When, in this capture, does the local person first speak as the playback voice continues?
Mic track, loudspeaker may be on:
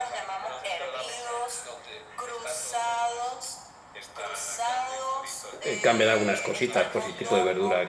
5.6 s

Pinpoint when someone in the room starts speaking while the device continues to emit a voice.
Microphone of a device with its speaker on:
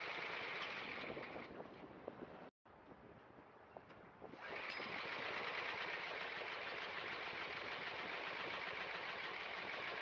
none

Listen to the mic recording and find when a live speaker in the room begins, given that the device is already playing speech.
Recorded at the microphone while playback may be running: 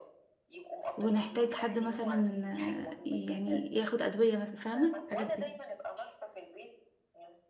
0.9 s

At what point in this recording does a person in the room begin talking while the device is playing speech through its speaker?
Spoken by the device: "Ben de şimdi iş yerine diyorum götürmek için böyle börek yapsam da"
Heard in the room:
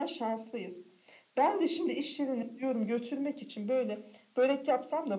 none

